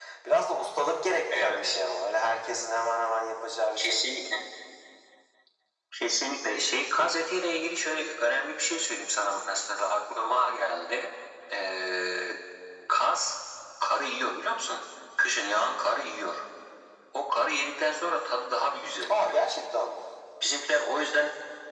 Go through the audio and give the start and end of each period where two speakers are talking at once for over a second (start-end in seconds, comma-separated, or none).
none